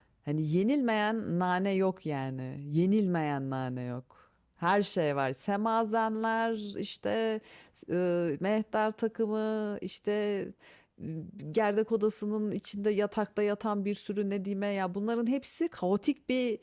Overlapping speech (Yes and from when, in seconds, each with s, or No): No